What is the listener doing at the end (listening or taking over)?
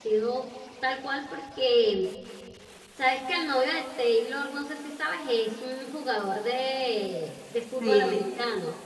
listening